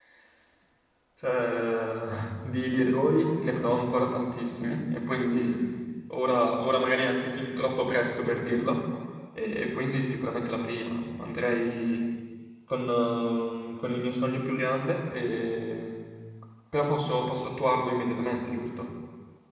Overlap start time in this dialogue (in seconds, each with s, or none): none